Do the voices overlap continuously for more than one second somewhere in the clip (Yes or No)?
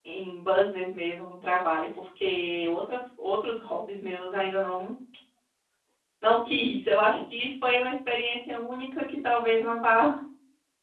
No